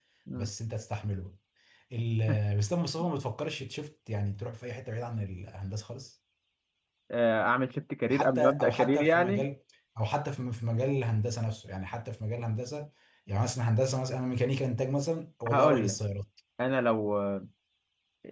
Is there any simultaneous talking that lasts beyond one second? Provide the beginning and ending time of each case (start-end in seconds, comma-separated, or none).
8.0-9.4